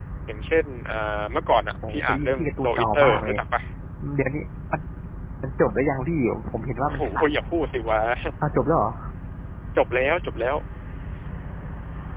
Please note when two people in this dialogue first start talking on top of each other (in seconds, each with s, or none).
1.9 s